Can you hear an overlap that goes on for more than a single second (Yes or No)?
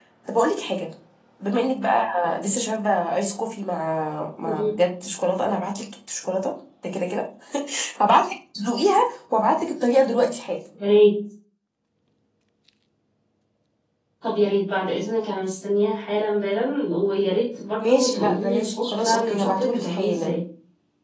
Yes